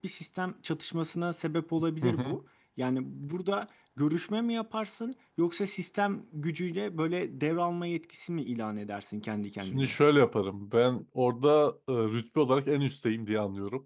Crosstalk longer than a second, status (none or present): none